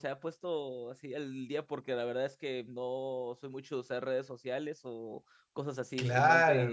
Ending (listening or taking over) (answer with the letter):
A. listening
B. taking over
B